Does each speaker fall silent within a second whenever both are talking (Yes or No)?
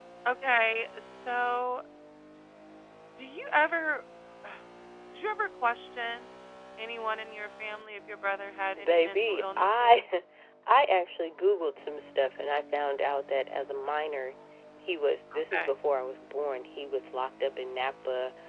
No